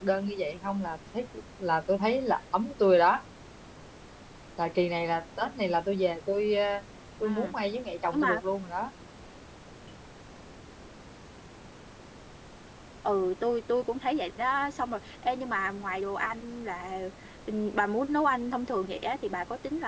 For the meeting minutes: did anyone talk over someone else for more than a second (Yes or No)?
No